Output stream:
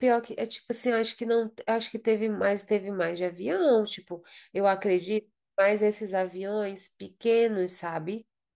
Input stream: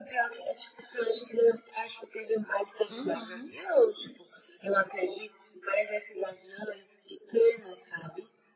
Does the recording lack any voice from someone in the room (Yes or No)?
No